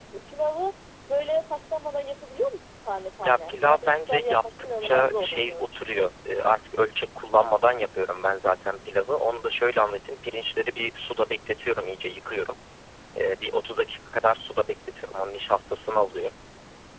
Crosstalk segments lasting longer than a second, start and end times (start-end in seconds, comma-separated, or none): 3.2-6.1